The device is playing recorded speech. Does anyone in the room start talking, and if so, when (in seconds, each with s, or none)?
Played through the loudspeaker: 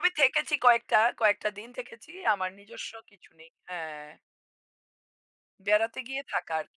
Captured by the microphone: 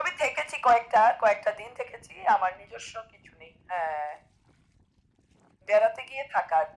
none